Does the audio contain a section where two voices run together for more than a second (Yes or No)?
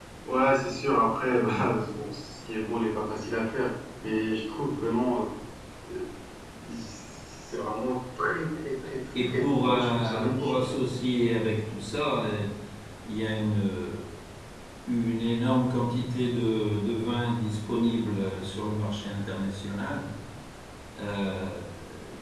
Yes